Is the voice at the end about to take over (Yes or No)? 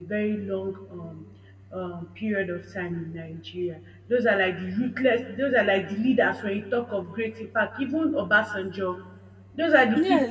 Yes